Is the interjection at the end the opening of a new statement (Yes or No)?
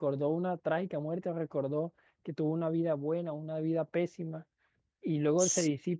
No